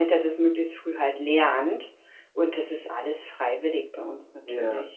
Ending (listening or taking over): taking over